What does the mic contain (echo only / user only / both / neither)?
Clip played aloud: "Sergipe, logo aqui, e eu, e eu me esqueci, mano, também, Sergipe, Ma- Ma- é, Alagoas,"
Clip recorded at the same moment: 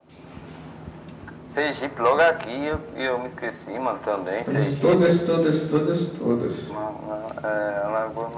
both